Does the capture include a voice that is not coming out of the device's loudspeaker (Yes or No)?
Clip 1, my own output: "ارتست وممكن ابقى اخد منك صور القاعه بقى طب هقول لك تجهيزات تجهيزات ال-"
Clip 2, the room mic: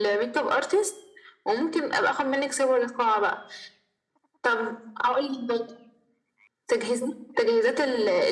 No